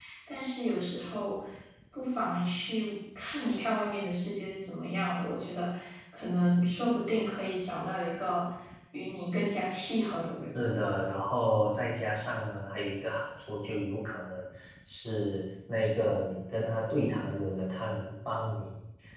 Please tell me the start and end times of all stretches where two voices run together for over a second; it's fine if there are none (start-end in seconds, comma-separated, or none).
none